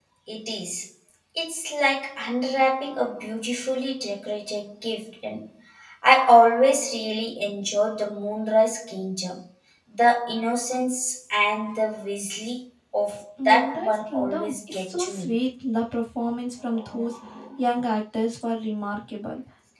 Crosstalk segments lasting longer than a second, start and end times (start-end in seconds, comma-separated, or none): 13.4-15.3